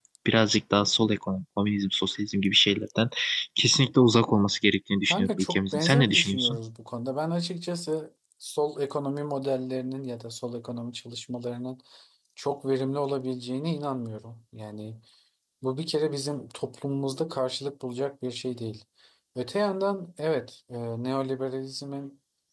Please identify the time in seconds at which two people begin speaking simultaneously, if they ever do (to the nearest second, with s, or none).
5 s